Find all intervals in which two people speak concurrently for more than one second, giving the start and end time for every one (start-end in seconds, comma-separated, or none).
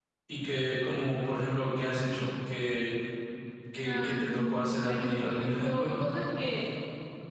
3.8-5.9